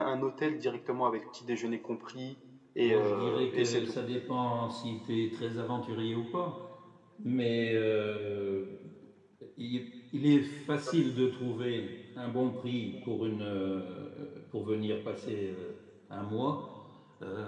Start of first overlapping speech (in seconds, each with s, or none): 2.8 s